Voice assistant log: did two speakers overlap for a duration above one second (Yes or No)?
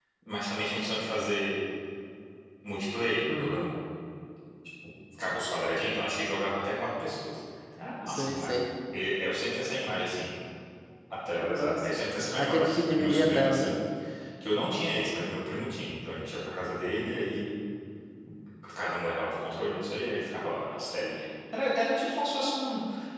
Yes